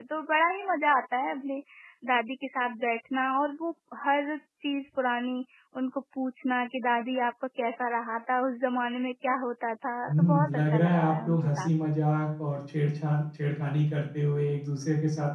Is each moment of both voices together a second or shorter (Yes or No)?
No